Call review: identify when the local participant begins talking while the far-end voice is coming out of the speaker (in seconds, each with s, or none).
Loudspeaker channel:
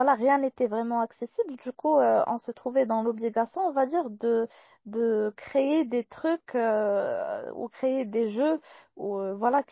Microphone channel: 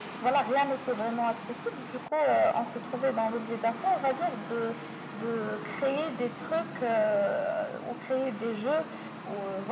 none